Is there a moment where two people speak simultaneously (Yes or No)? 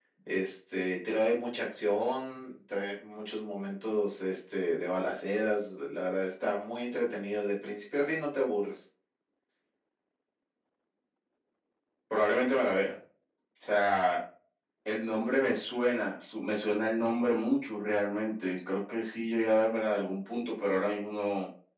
No